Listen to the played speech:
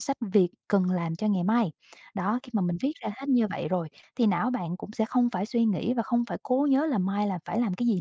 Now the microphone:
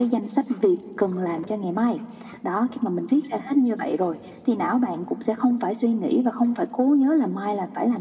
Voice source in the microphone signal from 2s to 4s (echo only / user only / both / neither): echo only